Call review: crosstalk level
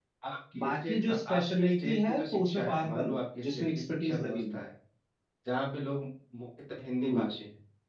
present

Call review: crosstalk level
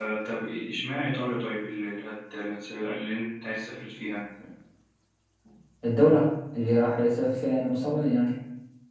none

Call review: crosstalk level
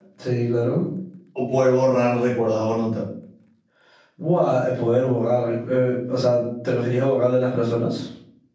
none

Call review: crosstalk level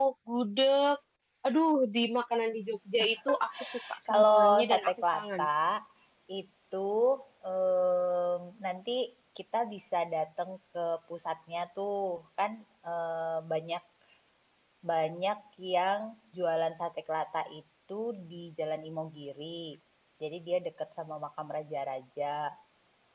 present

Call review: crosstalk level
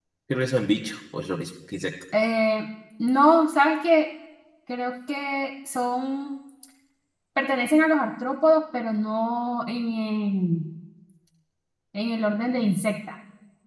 none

